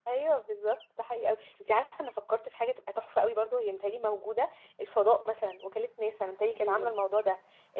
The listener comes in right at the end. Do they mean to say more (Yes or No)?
No